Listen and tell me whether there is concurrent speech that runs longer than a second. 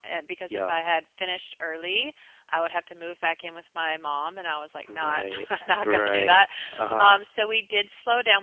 Yes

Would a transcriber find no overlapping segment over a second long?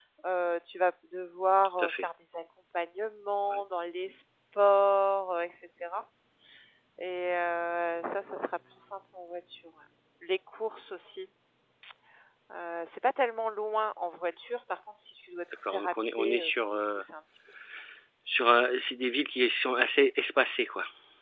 No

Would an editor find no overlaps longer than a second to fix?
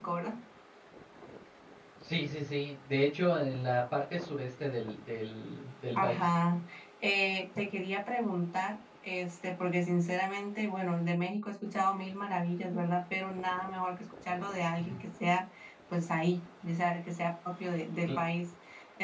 Yes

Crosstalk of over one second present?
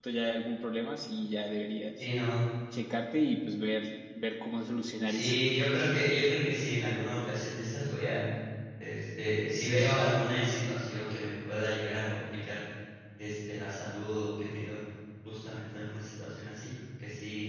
No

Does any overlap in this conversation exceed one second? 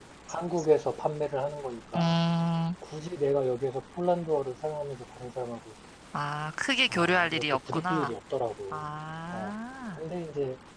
Yes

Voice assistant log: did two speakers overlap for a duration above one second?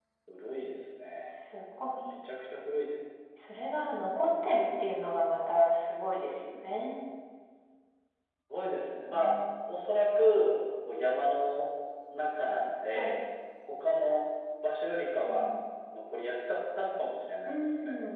No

